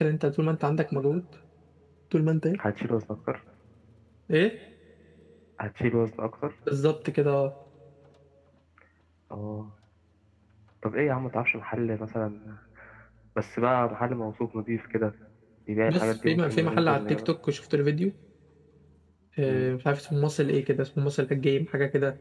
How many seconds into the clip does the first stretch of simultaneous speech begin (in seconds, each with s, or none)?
15.9 s